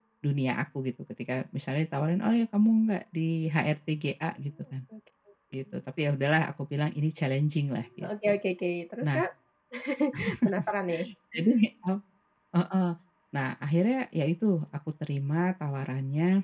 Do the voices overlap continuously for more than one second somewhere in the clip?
No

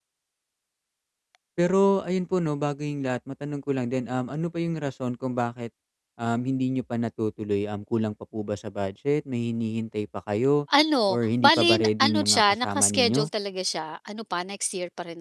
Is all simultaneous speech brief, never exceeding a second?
No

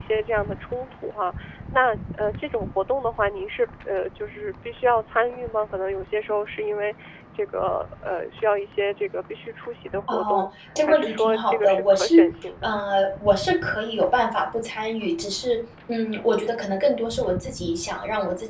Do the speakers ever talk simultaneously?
Yes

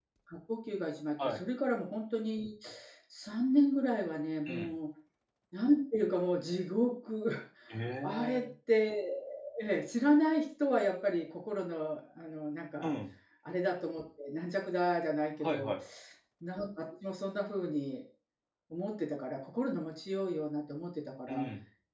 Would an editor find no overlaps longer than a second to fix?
Yes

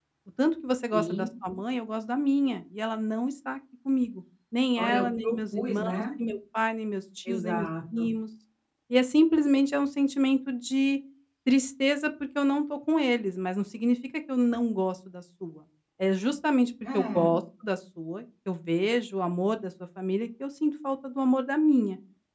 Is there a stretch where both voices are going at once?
Yes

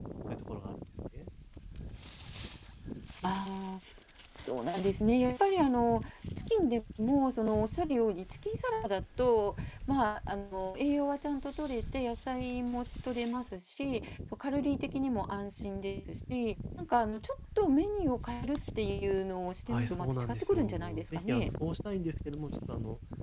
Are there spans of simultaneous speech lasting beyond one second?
Yes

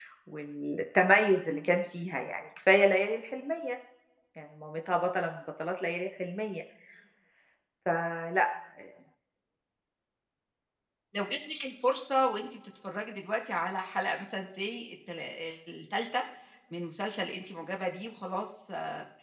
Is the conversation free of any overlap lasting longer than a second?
Yes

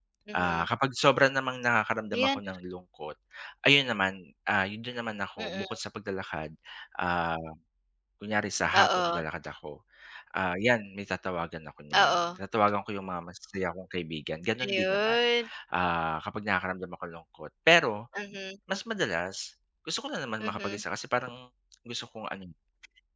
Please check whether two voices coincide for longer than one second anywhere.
No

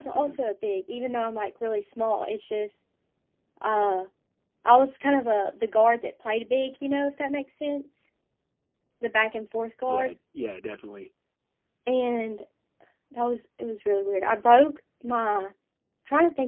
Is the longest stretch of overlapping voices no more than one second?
Yes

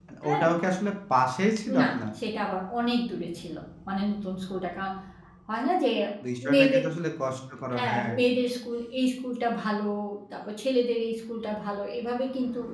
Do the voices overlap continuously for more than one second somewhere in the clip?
No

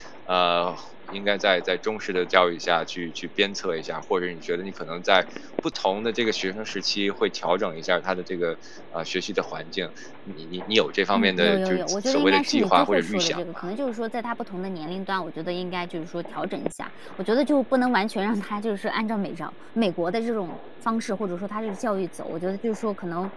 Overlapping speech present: Yes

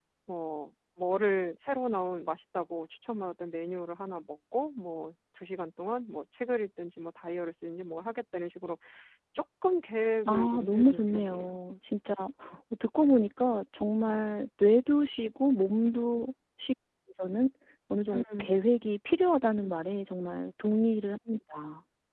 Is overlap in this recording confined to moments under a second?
No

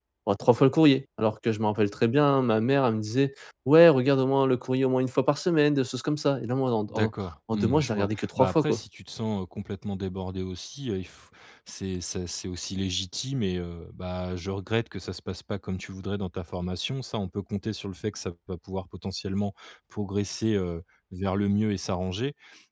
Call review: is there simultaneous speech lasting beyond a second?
Yes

